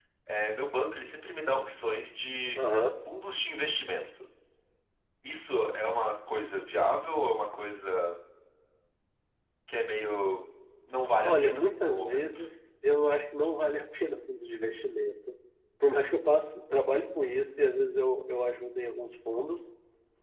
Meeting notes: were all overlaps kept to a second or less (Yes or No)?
No